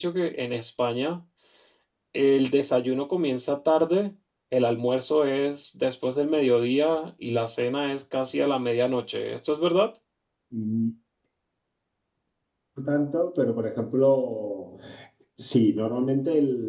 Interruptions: none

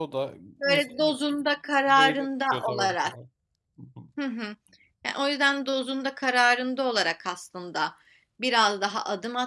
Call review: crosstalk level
present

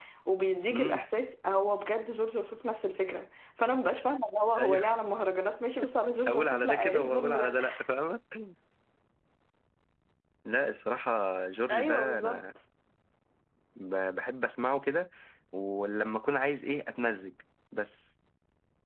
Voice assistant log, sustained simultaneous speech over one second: present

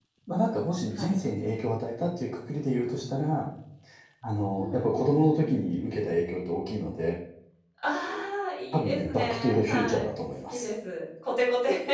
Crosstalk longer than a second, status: present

